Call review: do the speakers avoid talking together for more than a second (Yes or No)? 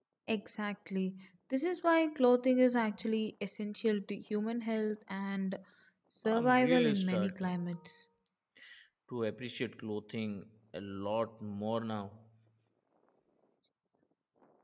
No